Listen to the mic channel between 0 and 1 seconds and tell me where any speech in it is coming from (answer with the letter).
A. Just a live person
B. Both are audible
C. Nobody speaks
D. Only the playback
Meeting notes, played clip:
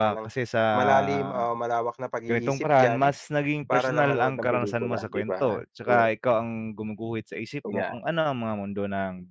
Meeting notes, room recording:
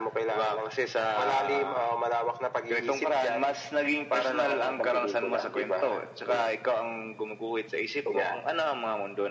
D